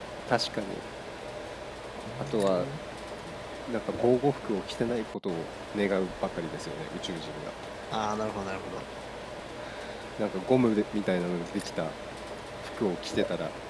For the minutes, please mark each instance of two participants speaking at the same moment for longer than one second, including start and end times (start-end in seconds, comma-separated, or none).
none